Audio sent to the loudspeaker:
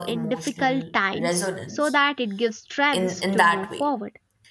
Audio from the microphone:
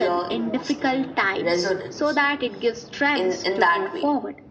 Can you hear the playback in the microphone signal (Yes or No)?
Yes